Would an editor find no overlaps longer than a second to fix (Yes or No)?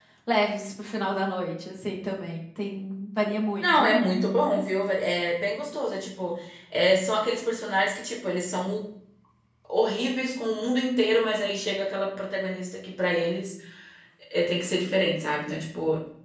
Yes